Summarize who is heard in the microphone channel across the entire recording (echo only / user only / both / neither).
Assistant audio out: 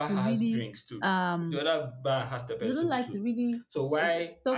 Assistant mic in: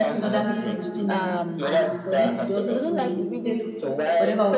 both